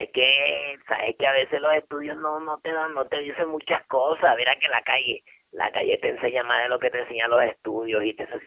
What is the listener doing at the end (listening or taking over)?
taking over